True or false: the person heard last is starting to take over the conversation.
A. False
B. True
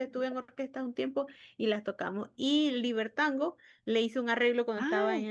A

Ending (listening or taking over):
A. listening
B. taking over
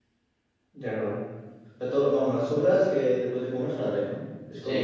B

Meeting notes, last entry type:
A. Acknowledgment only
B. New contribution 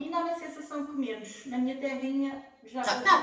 B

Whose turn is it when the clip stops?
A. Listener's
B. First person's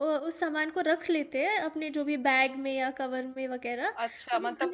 A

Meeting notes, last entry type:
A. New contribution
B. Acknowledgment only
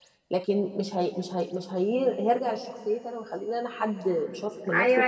A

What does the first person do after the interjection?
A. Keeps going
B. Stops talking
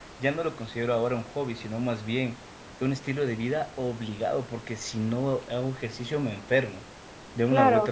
A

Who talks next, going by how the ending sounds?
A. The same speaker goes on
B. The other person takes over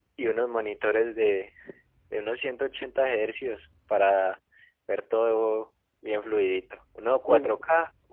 A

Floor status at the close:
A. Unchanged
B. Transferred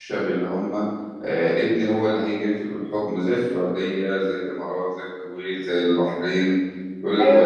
B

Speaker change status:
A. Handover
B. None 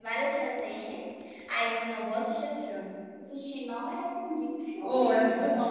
A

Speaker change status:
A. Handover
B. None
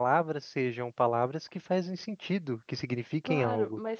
A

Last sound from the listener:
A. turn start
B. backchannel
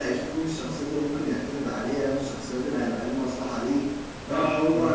A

